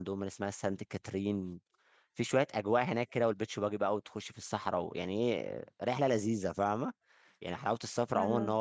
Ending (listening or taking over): listening